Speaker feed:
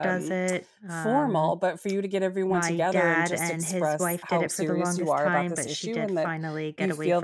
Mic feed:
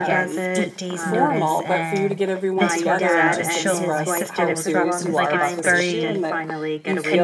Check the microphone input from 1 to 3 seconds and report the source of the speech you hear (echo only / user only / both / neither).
both